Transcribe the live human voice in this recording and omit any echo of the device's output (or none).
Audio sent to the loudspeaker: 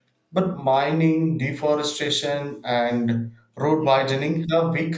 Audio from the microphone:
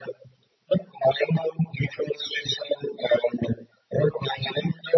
none